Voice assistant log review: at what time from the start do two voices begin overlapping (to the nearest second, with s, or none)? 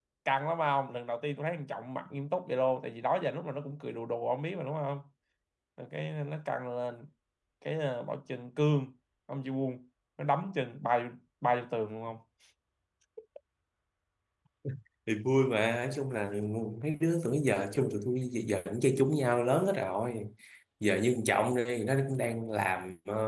none